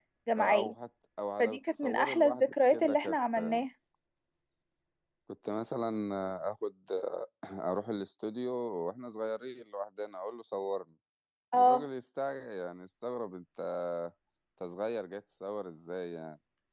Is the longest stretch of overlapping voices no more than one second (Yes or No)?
No